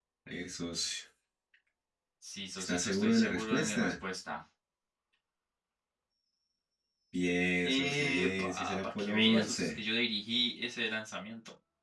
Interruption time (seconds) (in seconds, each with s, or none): 2.6 s